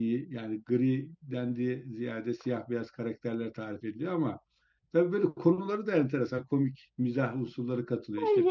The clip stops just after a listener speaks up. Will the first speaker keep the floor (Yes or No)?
No